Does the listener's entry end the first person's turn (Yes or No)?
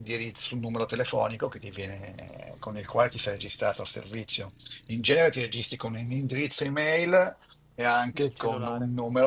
No